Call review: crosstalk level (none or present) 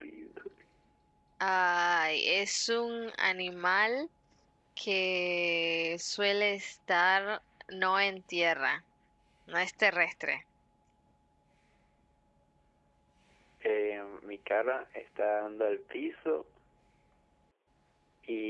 none